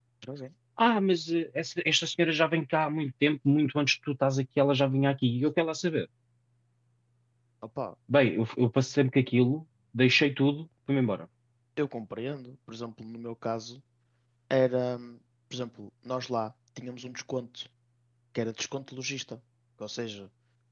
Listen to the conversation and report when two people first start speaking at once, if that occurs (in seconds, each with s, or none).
none